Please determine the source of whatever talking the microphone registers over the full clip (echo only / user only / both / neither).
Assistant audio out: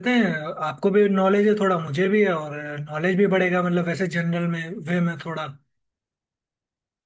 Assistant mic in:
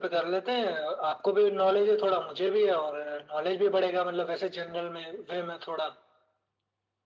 echo only